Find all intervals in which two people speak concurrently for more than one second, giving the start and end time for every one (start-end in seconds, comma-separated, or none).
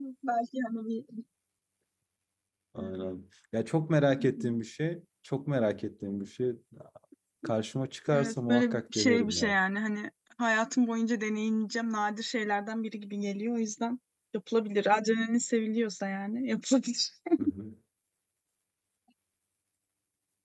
8.1-9.6